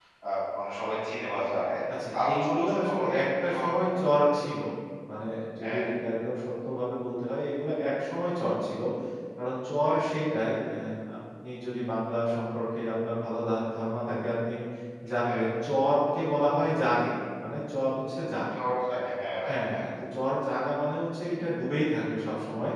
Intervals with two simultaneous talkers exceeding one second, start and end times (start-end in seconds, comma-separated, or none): 2.2-3.7